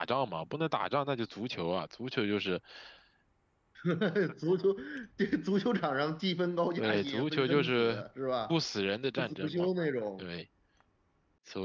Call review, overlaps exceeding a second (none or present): present